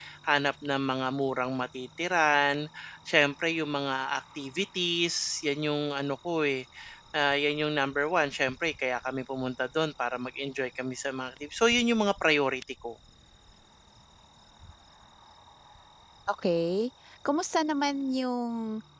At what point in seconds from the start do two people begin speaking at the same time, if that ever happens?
none

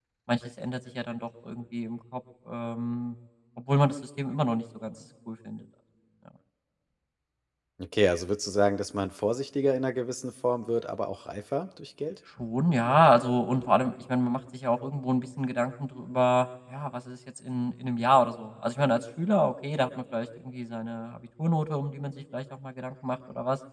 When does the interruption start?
none

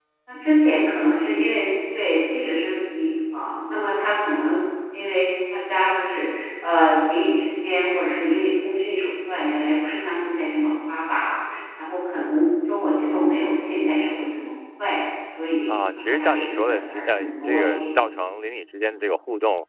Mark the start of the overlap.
15.7 s

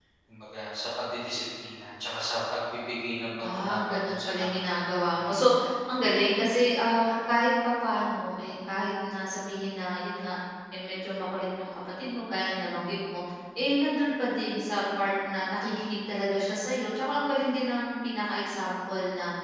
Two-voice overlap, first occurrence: 3.4 s

